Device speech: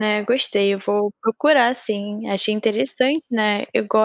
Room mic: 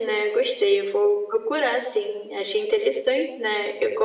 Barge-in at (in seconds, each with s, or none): none